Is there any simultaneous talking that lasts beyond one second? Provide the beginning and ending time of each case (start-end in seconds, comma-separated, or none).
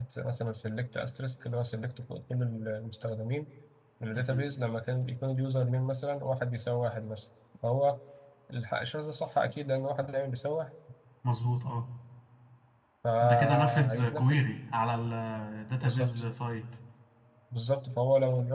13.2-14.4